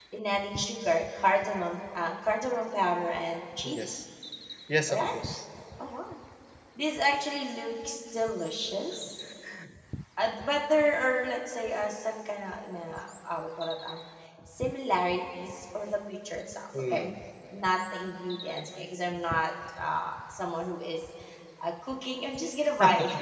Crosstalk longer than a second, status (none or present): none